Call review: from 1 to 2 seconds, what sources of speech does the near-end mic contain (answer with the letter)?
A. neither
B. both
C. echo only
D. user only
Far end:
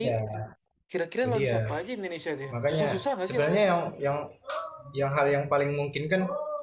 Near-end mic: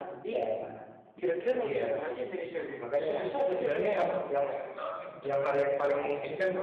C